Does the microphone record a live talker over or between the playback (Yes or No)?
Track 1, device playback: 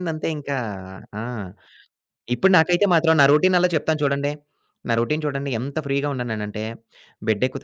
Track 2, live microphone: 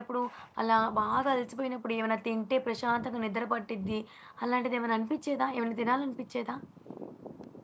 Yes